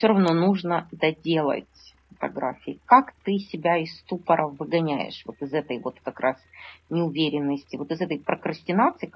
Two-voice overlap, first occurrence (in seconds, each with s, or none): none